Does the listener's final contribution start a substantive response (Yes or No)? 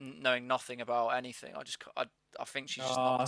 Yes